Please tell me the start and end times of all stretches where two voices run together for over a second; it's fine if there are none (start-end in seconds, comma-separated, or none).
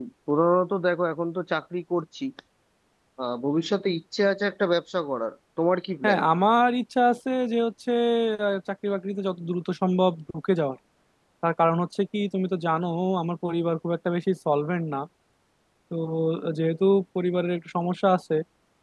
none